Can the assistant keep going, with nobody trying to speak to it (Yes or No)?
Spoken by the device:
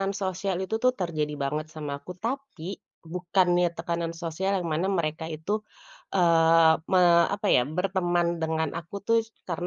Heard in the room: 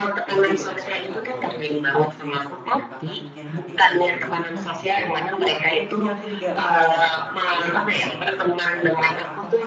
No